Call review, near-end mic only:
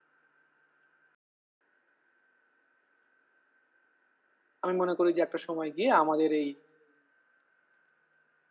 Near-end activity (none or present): present